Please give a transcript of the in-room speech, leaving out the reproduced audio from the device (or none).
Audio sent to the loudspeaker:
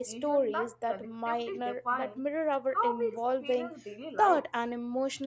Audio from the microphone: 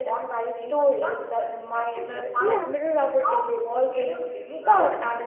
Yeah,